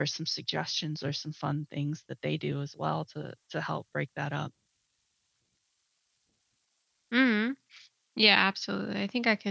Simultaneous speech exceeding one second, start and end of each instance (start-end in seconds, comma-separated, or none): none